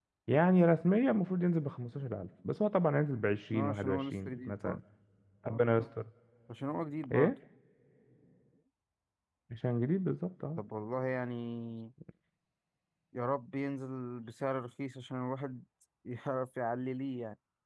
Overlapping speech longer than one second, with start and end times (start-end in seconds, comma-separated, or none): 3.5-4.8